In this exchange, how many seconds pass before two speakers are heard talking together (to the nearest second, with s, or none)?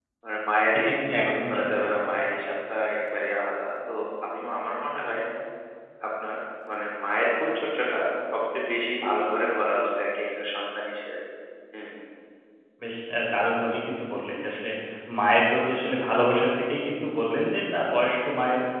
1 s